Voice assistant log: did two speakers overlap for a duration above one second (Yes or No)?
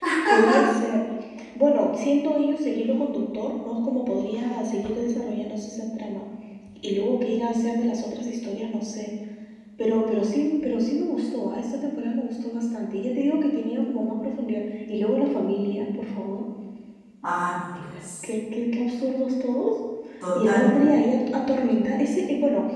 No